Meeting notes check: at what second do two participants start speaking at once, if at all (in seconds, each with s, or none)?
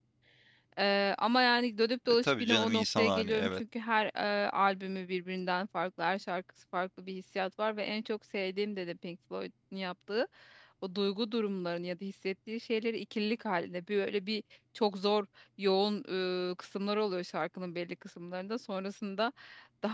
2.2 s